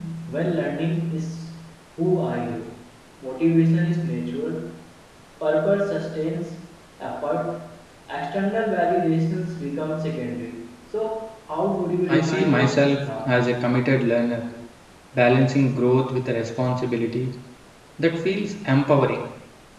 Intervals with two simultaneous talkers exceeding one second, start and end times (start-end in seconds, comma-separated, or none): 12.1-13.3